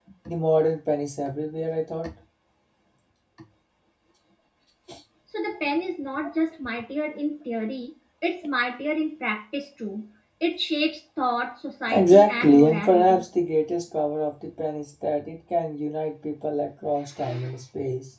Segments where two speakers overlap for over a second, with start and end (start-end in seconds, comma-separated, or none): 11.9-13.2